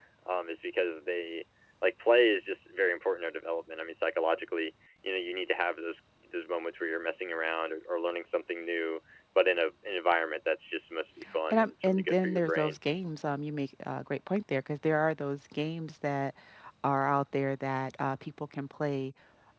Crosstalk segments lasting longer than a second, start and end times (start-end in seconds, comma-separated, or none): 11.5-12.8